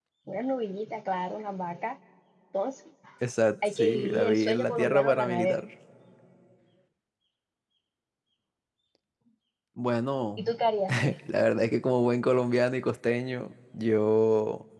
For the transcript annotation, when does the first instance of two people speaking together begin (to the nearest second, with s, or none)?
4 s